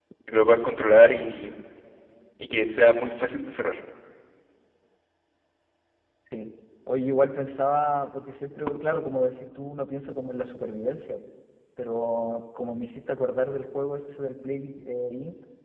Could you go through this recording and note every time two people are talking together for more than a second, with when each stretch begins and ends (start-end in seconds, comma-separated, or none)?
none